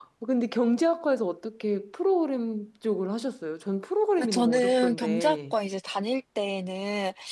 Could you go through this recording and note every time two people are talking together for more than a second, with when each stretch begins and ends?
4.2-5.5

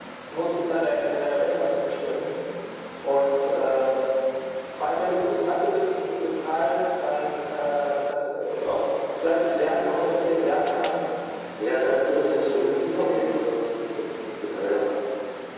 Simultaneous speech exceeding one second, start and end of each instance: 11.8-13.4

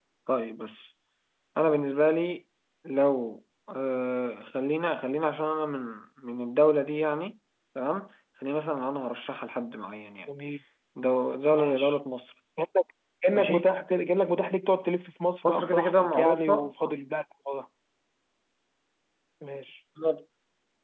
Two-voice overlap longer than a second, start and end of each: 15.4-16.7

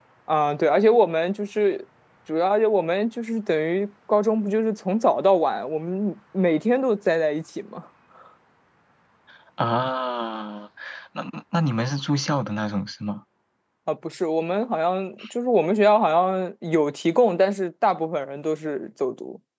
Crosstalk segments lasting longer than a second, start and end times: none

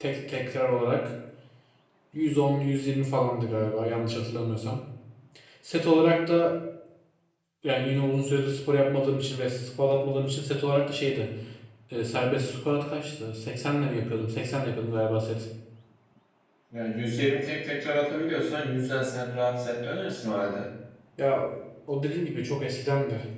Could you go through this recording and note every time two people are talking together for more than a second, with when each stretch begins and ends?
none

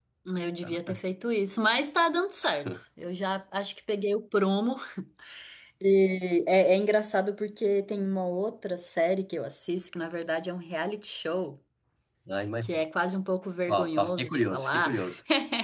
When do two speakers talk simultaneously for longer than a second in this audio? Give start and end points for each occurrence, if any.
13.7-15.0

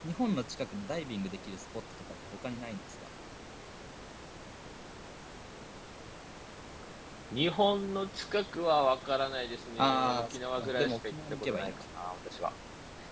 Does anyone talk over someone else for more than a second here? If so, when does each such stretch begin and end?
9.8-11.7

